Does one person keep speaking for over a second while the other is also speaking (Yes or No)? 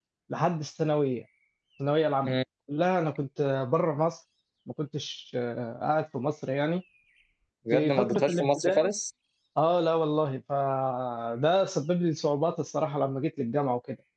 Yes